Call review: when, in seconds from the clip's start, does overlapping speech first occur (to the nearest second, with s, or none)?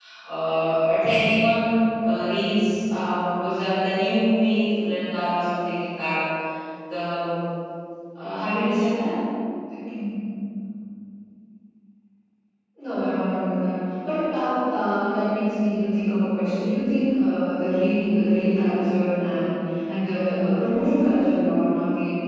none